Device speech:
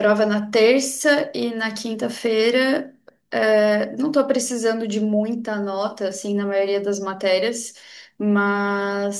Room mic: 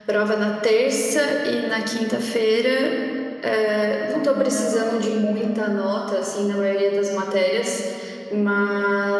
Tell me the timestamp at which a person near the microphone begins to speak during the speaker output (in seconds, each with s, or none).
4.3 s